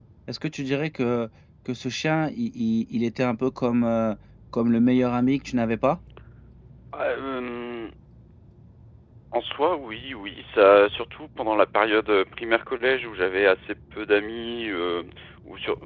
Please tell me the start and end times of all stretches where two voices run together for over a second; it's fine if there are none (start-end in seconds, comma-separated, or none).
none